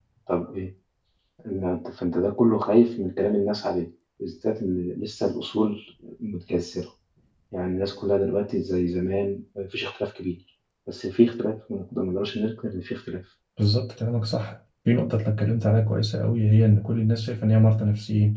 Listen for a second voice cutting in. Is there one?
No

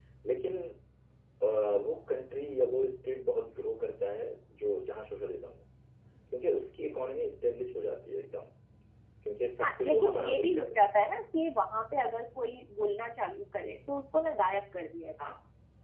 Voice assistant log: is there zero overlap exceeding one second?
No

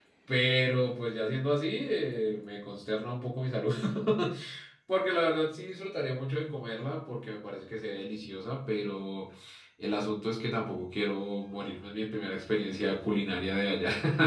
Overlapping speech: No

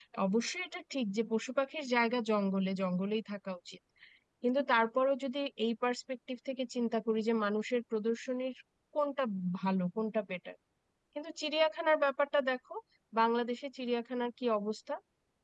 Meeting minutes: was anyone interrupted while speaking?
No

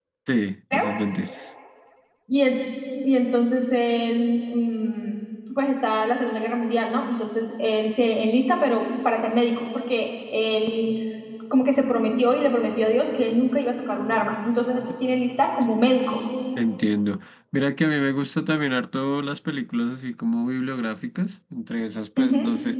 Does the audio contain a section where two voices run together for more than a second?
No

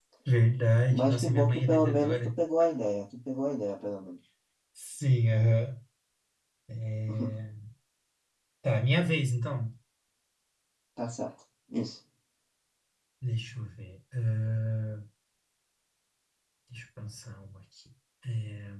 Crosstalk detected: Yes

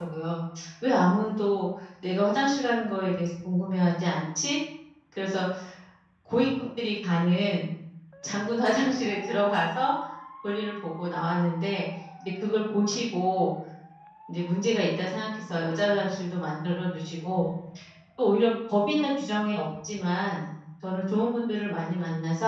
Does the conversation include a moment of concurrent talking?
No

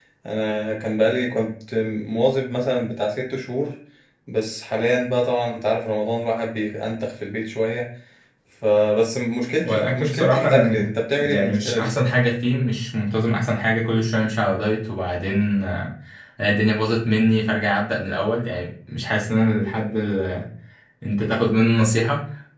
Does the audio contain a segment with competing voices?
Yes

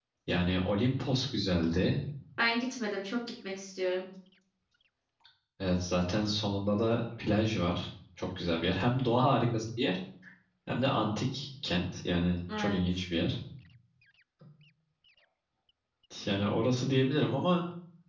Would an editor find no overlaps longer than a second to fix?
Yes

